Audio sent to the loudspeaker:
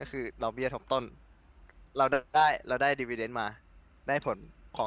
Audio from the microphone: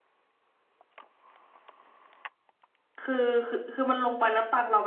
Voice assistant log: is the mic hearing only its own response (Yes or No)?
No